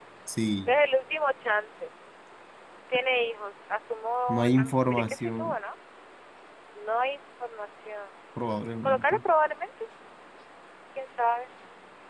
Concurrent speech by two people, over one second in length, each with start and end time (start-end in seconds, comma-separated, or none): 4.3-5.6